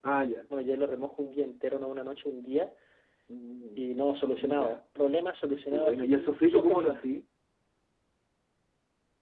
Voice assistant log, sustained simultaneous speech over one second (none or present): present